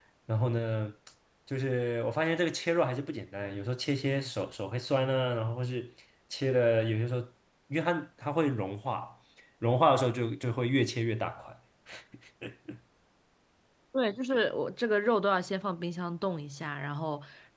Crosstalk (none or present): none